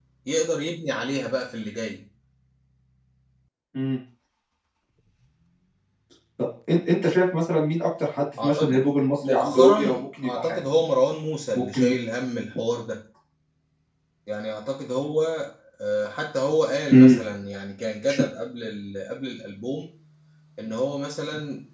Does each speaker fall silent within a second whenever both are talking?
No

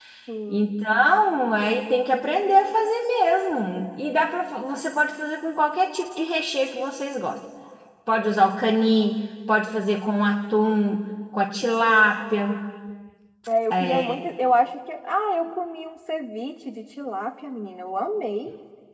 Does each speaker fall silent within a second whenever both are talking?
Yes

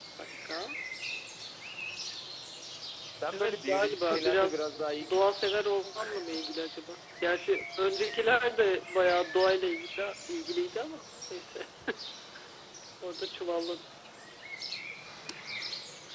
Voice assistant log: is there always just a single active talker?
No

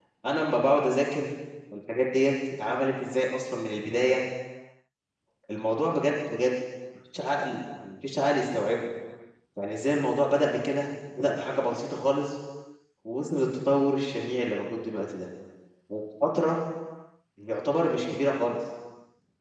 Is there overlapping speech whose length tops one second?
No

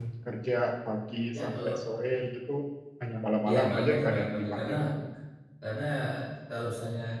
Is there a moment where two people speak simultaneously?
Yes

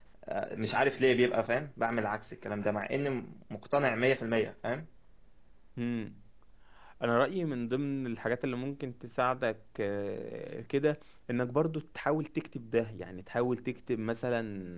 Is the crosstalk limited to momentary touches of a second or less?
Yes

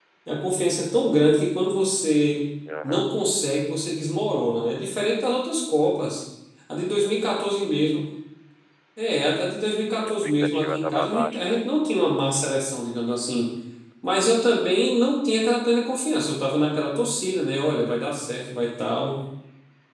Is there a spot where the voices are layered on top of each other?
Yes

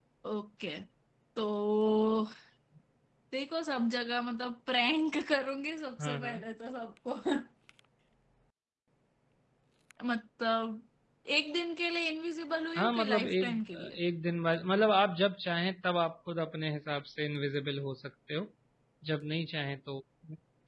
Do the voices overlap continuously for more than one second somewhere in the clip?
Yes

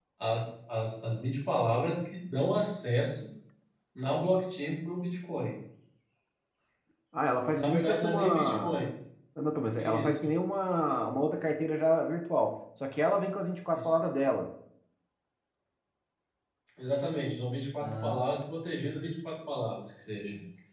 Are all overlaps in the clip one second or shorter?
No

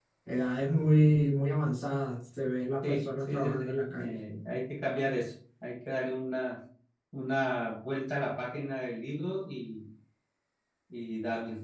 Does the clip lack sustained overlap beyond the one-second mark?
No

